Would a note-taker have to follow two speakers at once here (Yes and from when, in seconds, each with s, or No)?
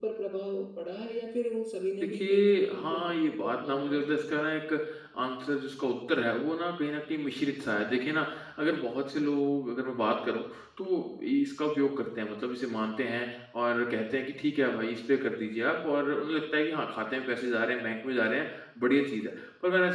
Yes, from 2.0 s